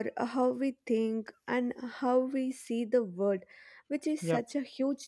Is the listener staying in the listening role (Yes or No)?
Yes